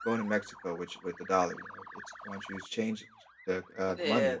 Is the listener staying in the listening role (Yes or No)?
No